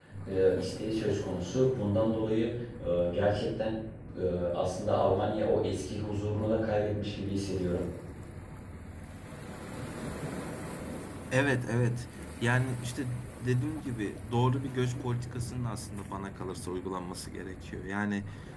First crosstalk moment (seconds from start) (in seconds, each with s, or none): none